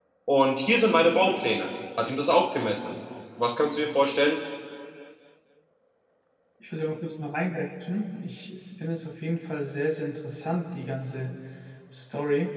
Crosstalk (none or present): none